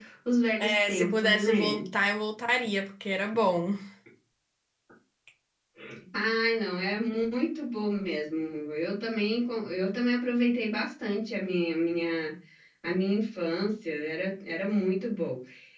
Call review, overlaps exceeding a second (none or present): present